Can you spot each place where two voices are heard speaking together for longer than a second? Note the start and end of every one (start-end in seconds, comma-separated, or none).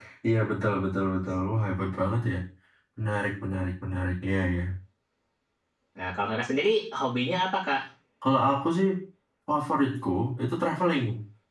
none